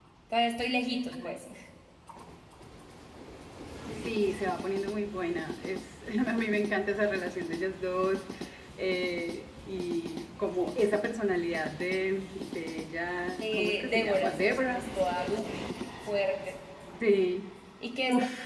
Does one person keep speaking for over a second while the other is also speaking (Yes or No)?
Yes